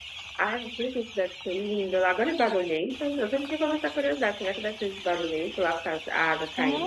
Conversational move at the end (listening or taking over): taking over